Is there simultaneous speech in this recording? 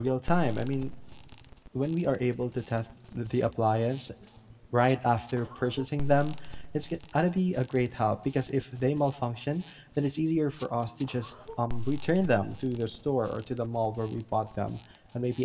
No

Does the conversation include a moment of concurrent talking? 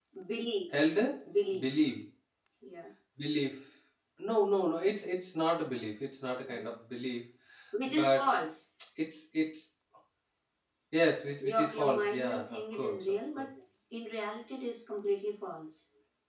Yes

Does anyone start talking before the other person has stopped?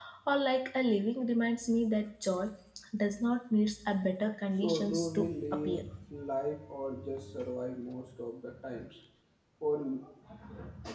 Yes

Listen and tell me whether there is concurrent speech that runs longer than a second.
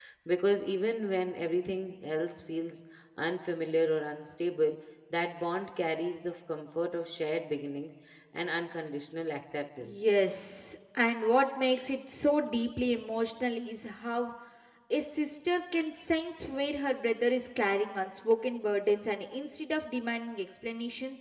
No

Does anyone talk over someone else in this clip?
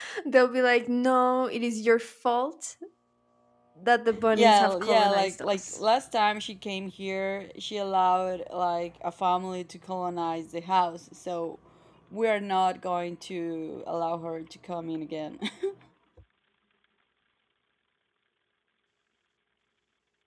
Yes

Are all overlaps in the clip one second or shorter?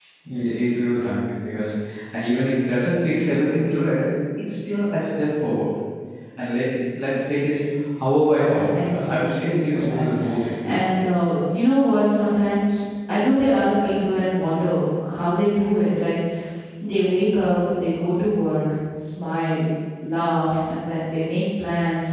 No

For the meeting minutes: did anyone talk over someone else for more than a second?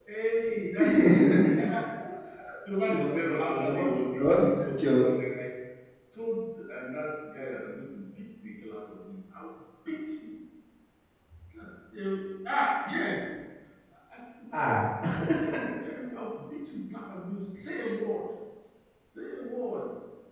Yes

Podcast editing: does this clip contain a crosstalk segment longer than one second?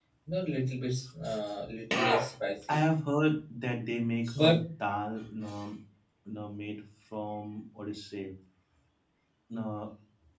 No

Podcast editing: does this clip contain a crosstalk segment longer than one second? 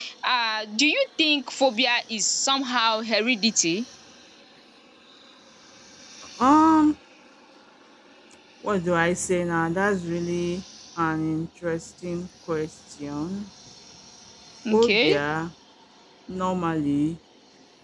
No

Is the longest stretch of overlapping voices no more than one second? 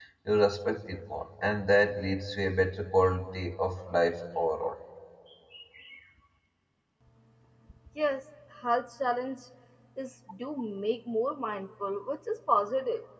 Yes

